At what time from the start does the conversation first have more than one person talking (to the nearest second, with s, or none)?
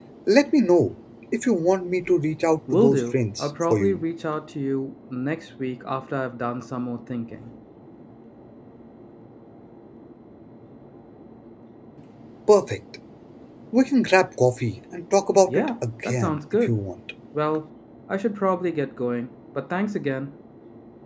3 s